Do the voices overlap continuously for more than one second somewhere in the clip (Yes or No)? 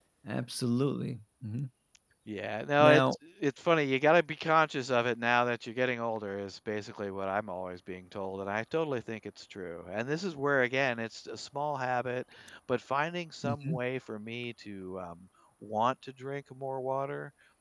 No